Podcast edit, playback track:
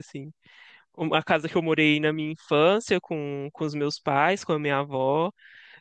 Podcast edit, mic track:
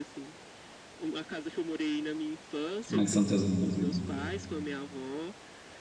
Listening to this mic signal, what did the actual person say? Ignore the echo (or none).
como é que são teus amigos? aí?